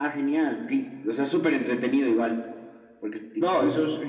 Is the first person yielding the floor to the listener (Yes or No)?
Yes